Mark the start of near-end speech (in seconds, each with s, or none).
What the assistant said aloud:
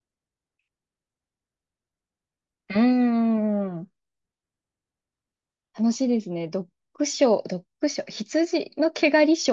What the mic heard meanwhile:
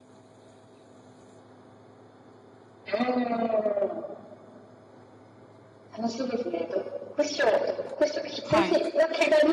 8.4 s